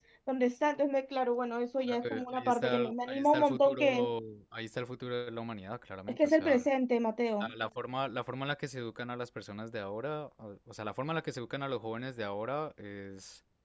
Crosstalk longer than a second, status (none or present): present